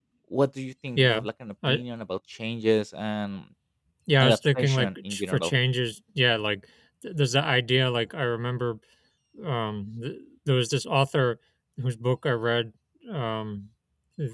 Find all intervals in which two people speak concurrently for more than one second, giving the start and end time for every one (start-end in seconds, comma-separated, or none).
4.2-5.5